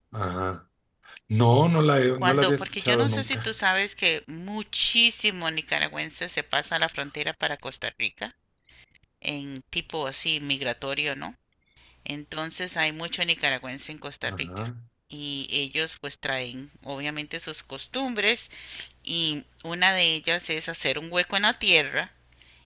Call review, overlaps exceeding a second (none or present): present